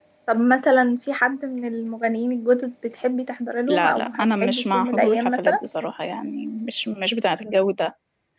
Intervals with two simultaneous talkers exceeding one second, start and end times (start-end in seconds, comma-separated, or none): 3.7-5.6